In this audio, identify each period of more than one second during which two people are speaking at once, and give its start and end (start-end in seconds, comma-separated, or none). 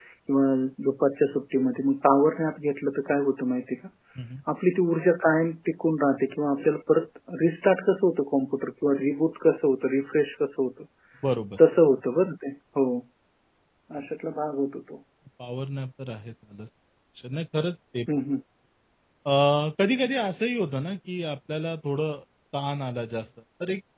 none